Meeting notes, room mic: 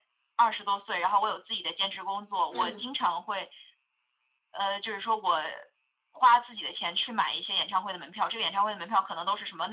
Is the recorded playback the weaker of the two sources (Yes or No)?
No